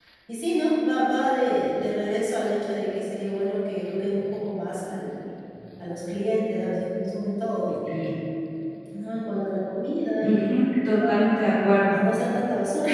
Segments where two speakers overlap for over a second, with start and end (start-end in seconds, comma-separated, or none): none